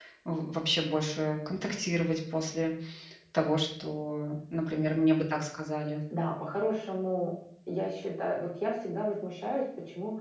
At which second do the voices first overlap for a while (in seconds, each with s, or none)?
none